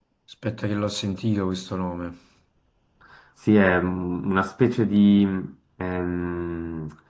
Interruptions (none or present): none